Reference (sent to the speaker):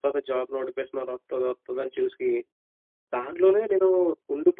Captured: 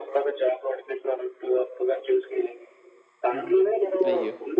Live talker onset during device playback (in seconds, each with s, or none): 3.3 s